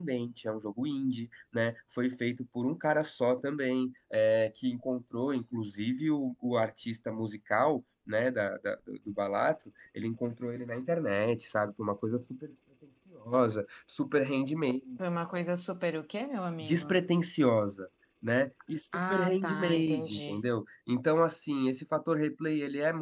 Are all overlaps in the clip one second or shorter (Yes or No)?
No